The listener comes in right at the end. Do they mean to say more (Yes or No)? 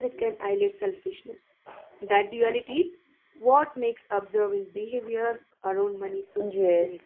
Yes